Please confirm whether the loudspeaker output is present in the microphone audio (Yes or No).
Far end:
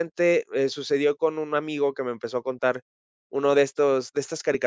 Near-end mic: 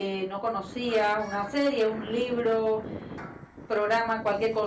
No